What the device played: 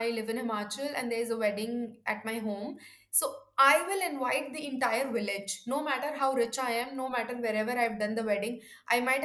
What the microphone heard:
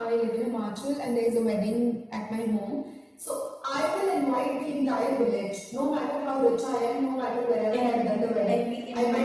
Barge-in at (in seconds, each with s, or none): 7.7 s